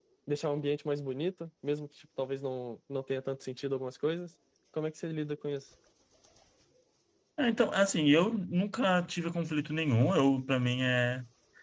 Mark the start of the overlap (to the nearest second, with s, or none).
none